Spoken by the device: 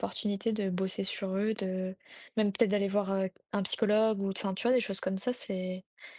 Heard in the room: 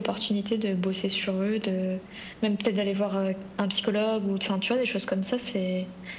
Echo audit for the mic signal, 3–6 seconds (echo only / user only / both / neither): echo only